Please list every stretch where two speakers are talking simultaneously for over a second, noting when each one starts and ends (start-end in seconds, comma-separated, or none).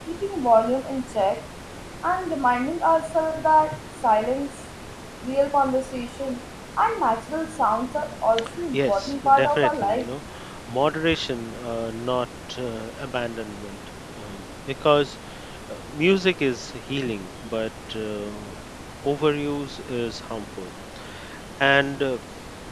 8.7-10.1